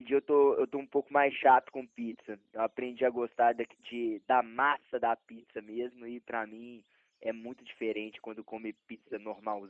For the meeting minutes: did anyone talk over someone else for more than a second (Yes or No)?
No